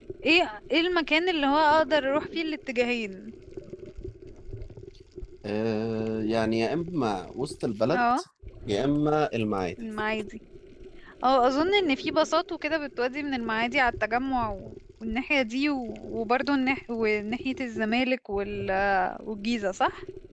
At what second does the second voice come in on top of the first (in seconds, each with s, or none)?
none